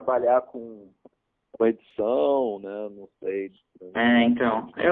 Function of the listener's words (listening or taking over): taking over